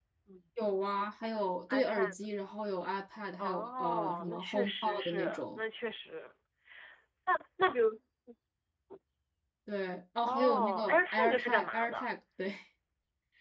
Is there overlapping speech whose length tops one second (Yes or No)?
Yes